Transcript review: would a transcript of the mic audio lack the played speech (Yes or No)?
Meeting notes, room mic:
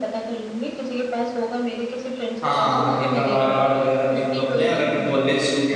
No